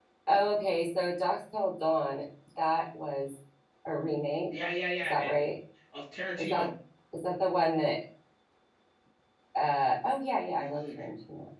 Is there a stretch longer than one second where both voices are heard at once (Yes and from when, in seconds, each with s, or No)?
No